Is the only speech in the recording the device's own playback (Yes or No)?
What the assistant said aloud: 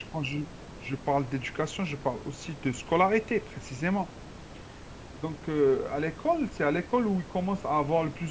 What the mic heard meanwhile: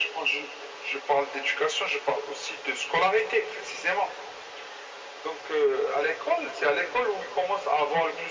Yes